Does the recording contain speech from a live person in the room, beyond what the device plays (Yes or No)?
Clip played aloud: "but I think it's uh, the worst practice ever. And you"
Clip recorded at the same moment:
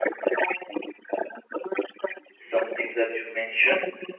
Yes